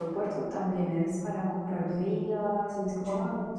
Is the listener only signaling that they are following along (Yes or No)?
Yes